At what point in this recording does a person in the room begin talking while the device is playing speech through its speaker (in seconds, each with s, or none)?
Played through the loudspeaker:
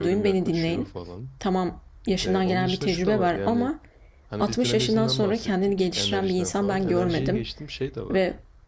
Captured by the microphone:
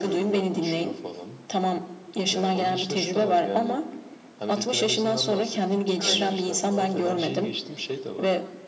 6.0 s